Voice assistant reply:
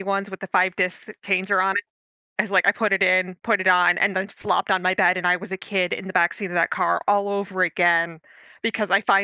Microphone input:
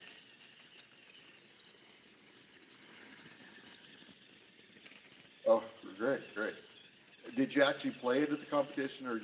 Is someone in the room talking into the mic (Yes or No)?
Yes